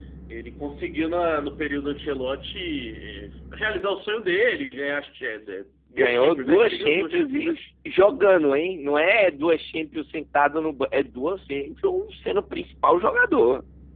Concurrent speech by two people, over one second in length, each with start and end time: 5.9-7.6

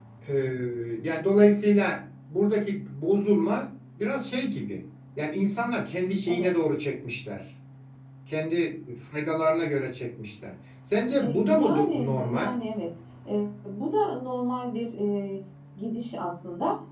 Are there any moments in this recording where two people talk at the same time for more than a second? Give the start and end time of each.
11.2-12.6

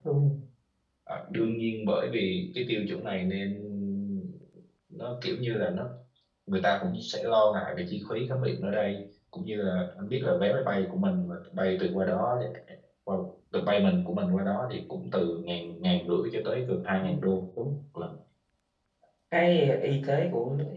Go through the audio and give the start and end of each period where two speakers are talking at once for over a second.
none

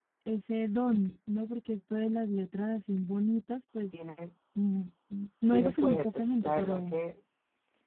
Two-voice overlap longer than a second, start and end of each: 5.5-7.0

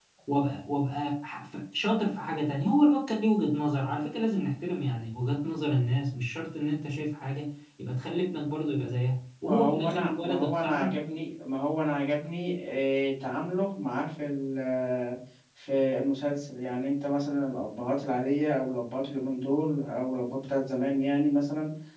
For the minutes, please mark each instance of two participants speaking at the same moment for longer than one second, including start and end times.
9.4-11.0

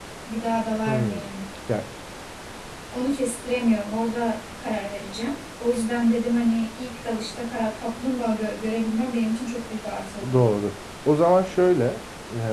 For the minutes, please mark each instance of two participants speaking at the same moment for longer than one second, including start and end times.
none

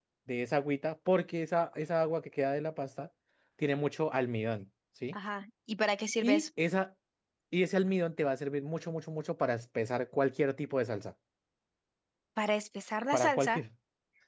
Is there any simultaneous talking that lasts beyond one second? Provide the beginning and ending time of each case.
none

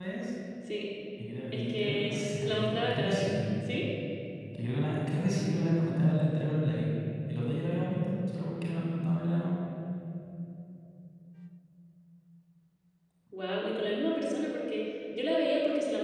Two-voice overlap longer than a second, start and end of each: 1.5-3.5

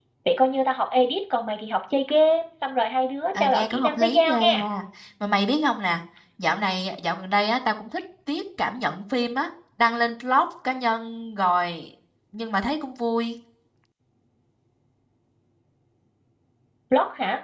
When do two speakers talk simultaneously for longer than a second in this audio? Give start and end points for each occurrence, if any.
3.3-4.6

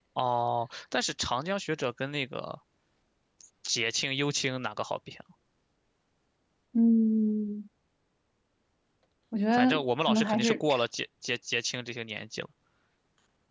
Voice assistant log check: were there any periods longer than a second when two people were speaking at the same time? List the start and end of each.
9.5-10.8

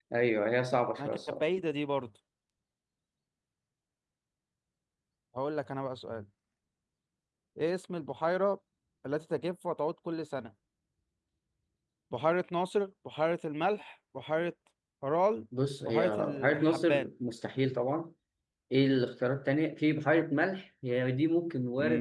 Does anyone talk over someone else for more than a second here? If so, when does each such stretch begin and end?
15.8-17.1

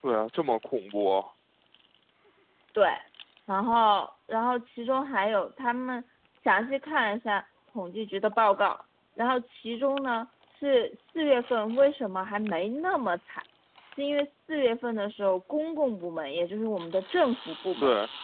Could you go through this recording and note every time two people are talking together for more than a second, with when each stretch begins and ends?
none

